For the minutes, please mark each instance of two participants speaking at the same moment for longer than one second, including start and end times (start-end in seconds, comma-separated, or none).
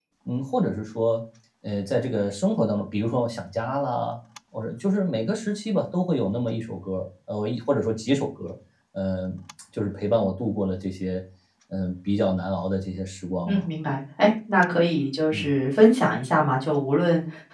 none